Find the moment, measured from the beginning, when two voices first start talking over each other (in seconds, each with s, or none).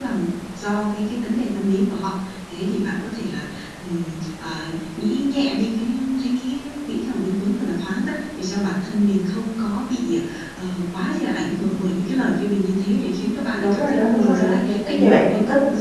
13.4 s